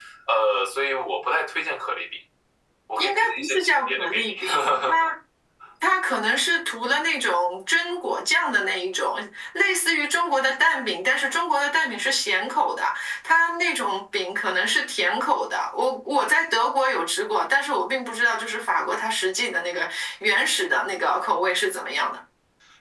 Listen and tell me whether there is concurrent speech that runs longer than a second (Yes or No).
Yes